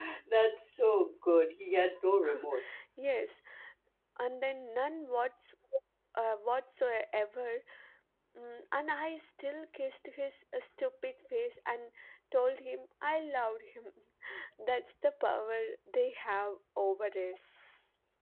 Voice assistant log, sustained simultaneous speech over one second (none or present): none